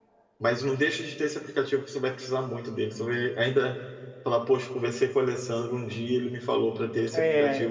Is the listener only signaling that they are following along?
No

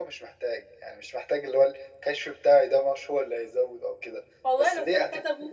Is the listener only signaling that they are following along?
No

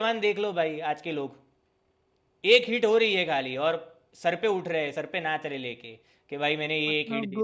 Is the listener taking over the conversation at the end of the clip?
No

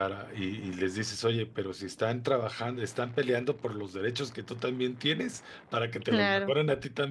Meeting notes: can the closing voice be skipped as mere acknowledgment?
Yes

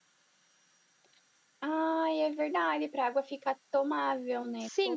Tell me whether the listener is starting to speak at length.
Yes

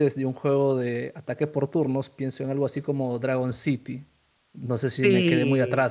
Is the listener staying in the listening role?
Yes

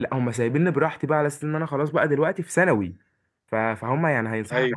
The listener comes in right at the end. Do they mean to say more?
No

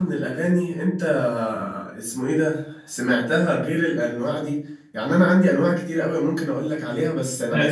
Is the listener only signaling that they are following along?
Yes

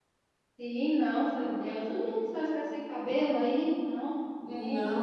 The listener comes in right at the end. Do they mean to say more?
Yes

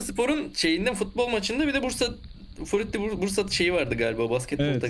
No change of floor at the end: No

